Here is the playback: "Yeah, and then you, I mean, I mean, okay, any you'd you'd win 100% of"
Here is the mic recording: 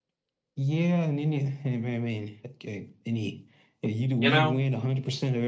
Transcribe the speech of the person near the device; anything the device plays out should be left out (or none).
you know?